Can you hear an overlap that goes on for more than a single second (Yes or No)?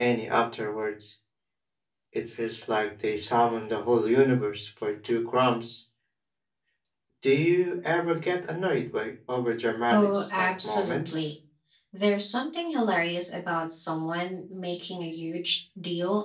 Yes